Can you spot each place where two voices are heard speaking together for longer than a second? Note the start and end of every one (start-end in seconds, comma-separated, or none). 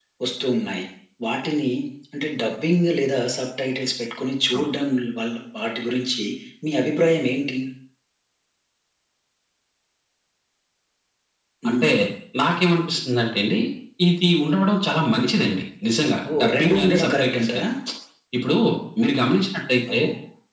16.3-17.6